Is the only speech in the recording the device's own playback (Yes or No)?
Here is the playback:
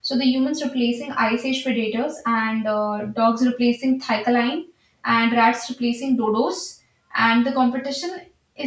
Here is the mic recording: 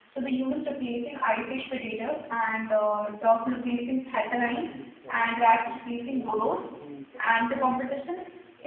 No